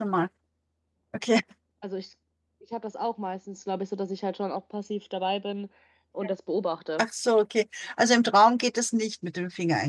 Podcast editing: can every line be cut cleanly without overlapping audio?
Yes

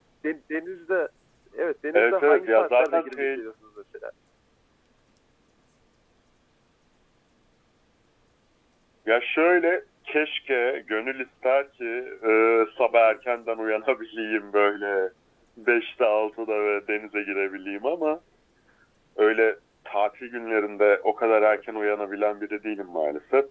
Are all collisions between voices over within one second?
No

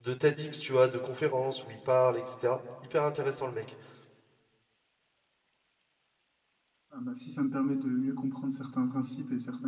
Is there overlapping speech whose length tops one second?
No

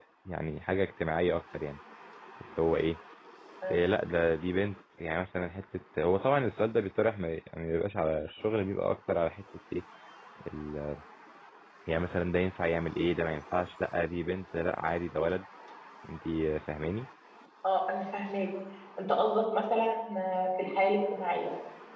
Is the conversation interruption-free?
Yes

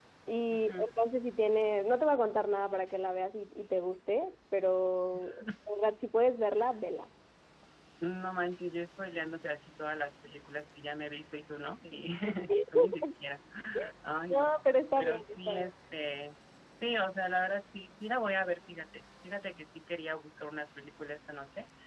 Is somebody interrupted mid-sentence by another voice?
Yes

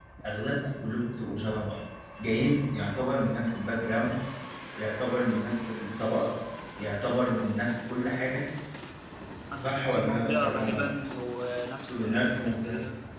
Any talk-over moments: Yes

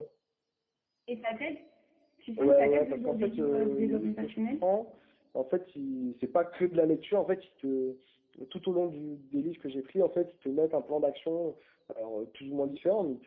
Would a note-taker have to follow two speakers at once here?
Yes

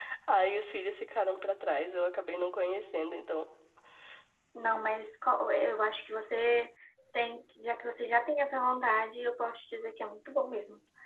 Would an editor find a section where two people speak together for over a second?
No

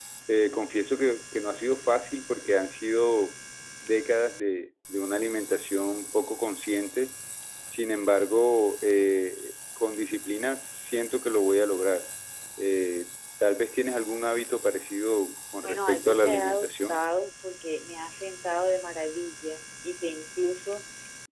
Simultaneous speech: Yes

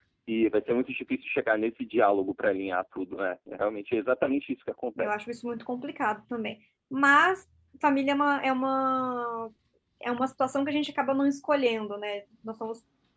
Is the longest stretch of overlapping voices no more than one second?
Yes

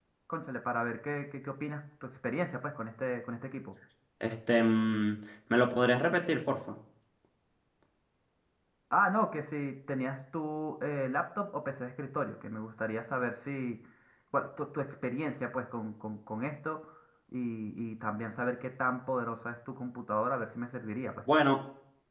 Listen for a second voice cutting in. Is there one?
No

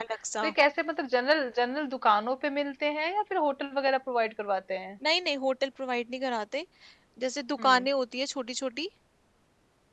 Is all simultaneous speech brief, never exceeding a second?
Yes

